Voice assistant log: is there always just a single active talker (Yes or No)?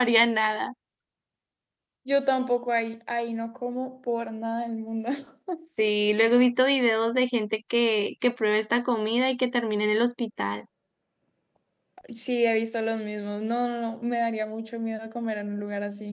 Yes